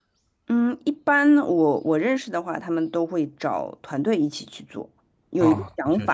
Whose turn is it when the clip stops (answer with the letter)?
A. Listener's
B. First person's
B